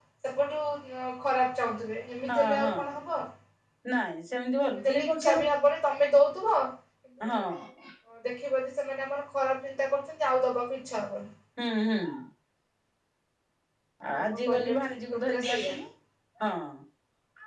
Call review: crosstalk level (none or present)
present